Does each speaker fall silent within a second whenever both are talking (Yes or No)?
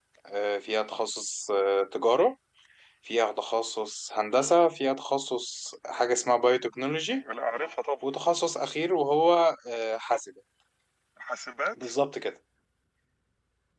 Yes